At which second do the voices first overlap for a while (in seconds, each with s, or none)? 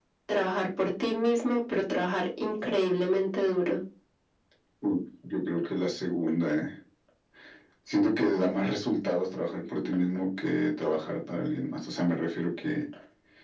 none